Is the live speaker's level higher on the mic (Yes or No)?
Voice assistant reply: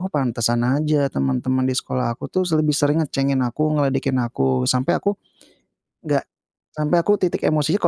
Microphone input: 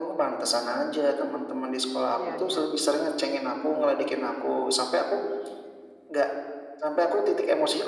No